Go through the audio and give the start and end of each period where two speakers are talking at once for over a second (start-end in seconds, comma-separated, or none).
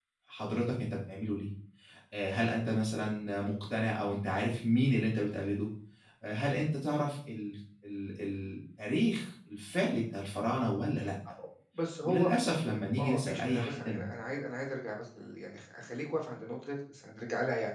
12.7-14.0